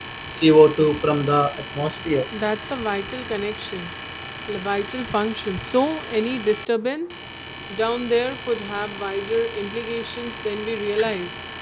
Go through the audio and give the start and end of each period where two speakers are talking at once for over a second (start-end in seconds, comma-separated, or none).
none